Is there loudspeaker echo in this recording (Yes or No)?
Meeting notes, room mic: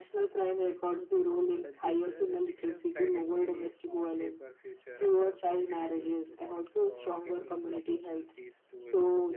Yes